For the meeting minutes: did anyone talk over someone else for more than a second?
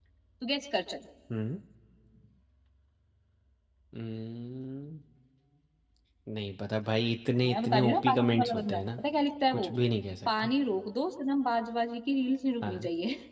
Yes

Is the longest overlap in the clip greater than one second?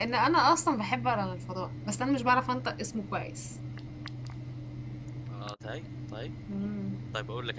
No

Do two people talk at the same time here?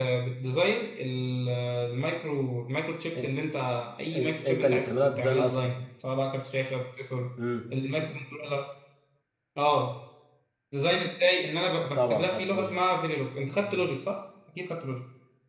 Yes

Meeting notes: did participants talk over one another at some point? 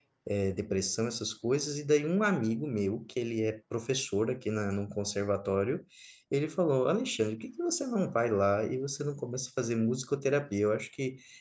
No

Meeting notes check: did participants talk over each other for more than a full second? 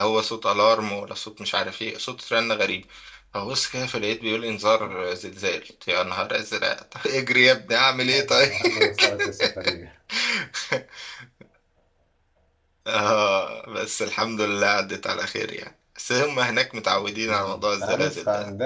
Yes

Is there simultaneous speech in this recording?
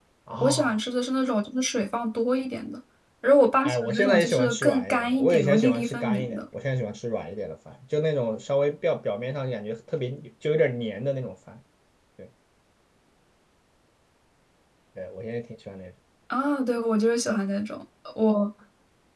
Yes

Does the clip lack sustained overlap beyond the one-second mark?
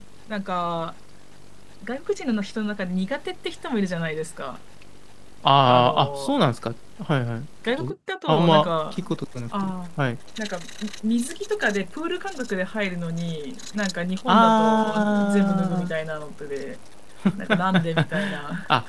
No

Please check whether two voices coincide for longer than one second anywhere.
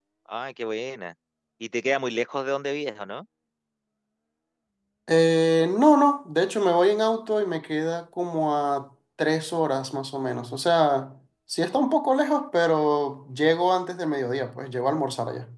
No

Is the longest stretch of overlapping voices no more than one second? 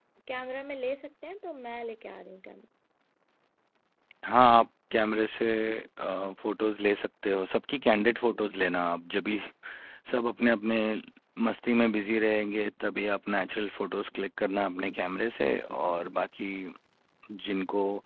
Yes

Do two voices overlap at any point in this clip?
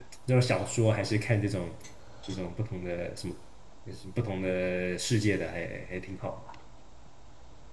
No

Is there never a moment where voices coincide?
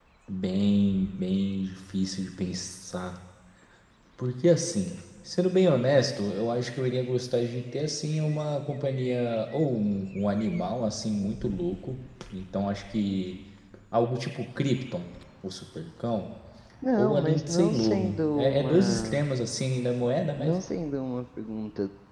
No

